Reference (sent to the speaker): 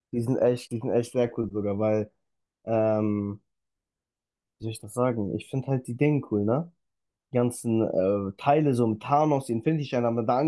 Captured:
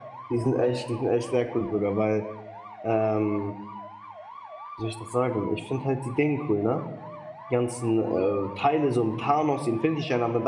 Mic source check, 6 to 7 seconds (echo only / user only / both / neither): echo only